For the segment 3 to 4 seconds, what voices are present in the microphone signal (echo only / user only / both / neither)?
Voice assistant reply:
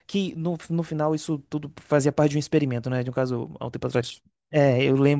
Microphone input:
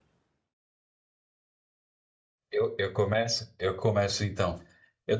user only